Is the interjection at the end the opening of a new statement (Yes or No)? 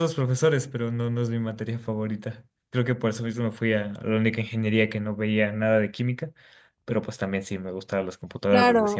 Yes